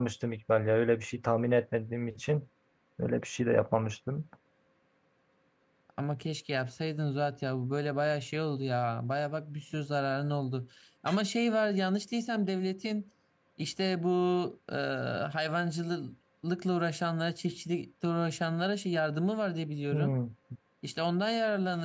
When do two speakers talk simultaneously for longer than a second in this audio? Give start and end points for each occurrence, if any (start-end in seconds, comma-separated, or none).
none